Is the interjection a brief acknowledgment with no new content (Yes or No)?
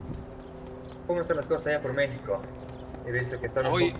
Yes